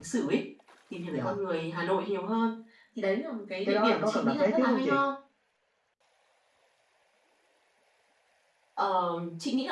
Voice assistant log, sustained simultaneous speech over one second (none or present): present